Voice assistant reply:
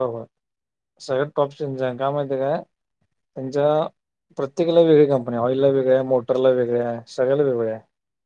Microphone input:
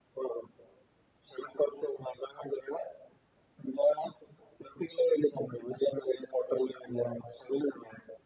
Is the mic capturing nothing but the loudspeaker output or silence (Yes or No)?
Yes